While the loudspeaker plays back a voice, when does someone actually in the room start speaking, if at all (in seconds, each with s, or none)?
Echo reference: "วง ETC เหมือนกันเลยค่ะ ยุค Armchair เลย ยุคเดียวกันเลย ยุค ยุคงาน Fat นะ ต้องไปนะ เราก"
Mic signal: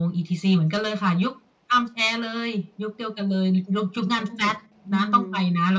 4.0 s